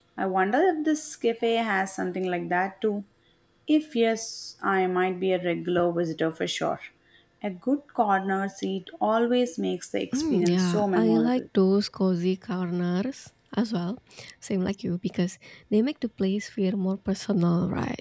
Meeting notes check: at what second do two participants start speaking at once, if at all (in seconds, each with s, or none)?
10.1 s